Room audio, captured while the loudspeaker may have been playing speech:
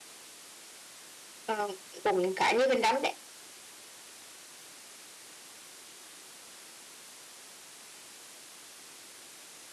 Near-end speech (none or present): present